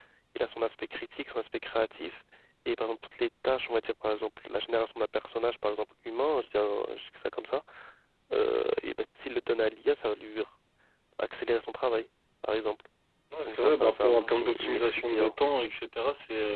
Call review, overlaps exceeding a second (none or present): present